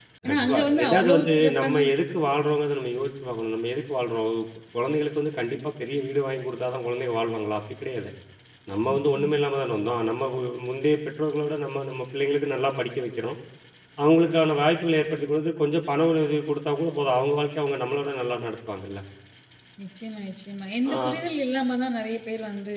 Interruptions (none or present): present